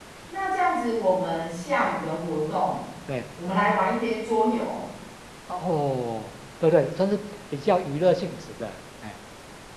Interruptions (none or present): none